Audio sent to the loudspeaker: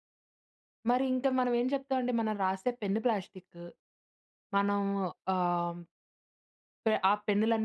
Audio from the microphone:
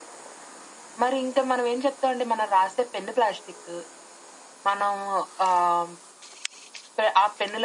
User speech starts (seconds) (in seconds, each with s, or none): none